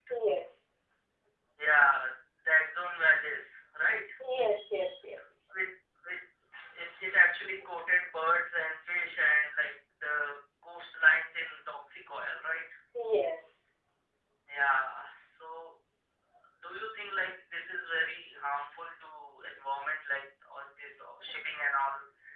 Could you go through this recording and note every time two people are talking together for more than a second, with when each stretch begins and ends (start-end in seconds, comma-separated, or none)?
none